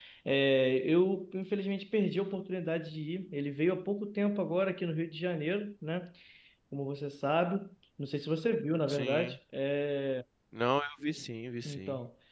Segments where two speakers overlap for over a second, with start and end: none

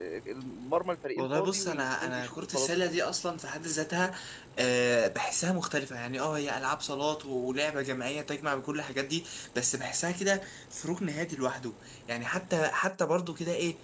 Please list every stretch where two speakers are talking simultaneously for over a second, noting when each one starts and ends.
1.2-2.7

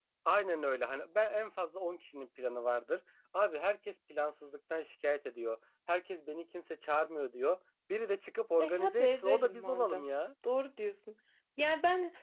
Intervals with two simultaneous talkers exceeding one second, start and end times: 8.6-10.1

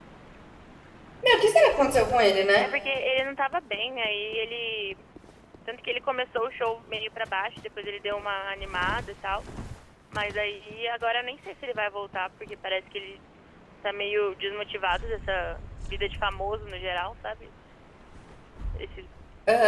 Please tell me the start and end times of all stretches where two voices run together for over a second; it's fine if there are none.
none

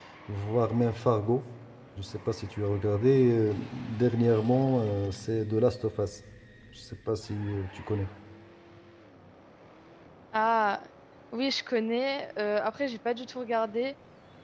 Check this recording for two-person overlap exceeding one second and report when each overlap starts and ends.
none

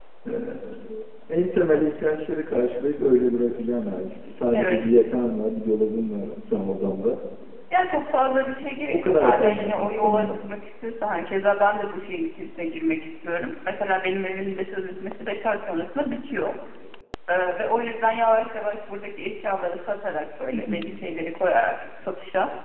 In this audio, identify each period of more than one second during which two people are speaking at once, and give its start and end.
8.9-10.3

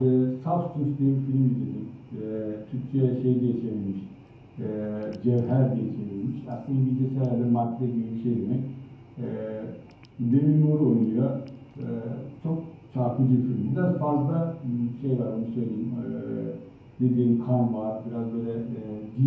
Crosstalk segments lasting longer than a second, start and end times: none

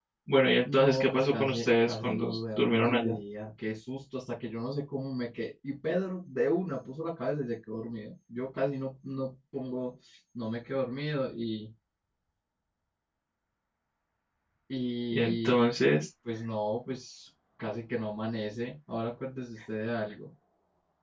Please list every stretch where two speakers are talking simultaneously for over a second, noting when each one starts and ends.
0.7-3.1

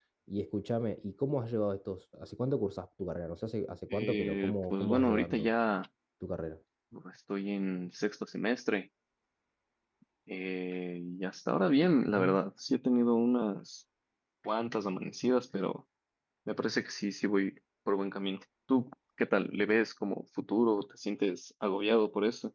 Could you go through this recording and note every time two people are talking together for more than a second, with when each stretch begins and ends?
3.9-5.5

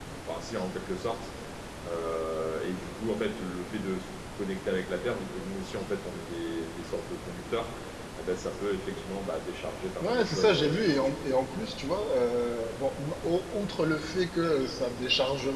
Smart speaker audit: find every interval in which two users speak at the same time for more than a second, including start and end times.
10.0-11.3

